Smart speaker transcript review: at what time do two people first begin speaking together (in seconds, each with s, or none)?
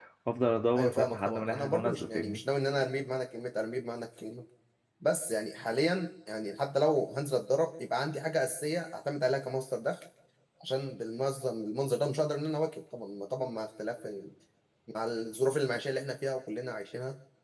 0.8 s